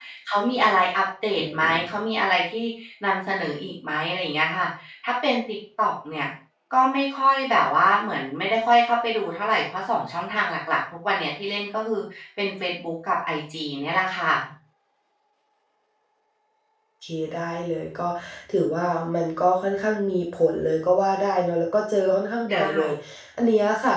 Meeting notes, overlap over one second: none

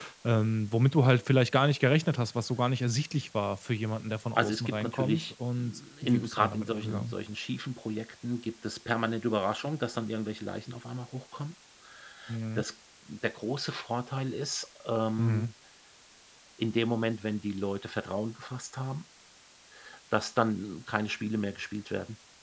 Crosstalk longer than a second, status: present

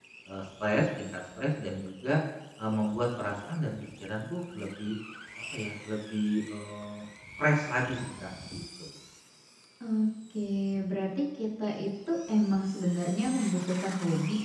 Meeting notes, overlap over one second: none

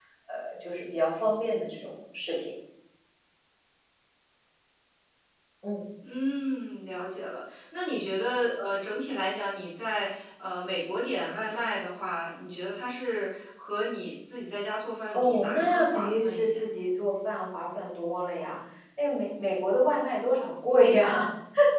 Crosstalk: present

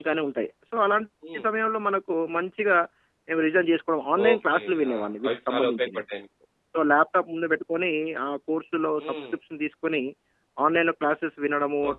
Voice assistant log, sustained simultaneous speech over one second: present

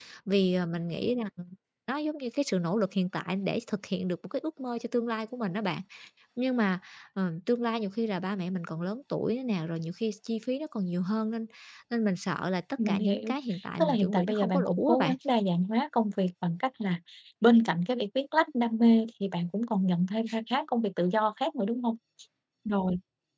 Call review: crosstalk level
present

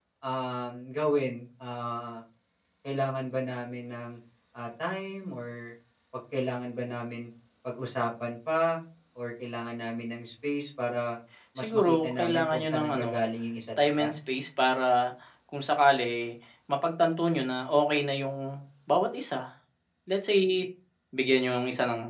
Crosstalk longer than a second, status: present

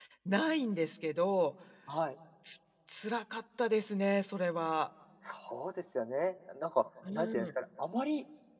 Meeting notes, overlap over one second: none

